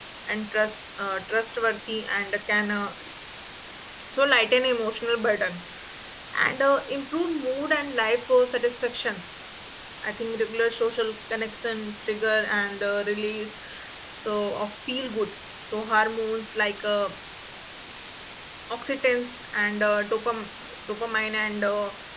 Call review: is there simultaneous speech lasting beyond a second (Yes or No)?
No